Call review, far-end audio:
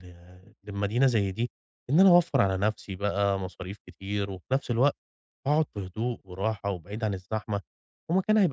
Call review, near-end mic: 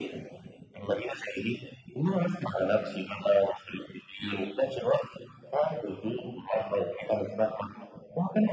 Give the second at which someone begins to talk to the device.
none

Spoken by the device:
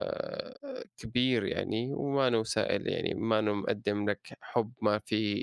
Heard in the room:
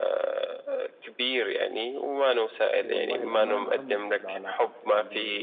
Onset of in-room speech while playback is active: 3 s

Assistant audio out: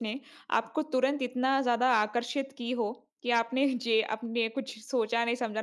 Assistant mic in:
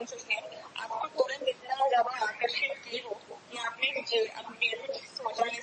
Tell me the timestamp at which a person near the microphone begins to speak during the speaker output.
none

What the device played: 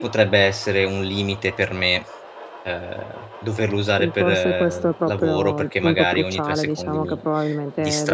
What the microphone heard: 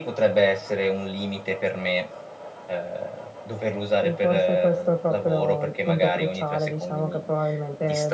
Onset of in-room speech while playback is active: none

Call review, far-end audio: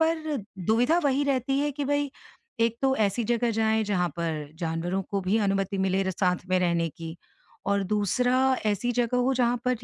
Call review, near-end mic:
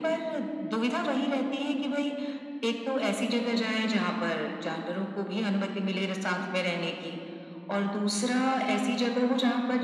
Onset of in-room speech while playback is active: none

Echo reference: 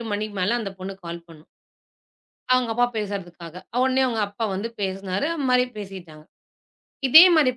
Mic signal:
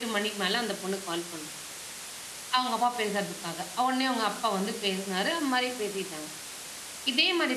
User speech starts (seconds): none

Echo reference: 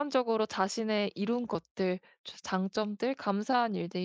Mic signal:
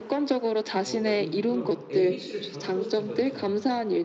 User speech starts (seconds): 1 s

